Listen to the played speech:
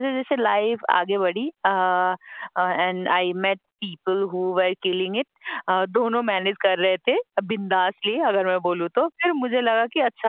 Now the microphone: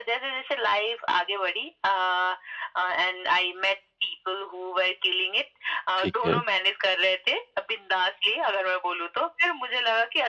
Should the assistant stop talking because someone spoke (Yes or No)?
Yes